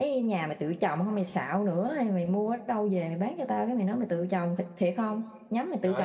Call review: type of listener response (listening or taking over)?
taking over